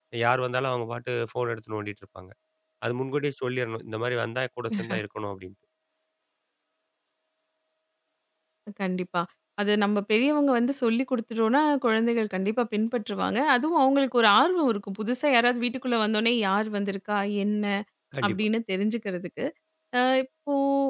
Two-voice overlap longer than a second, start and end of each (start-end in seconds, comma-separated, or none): none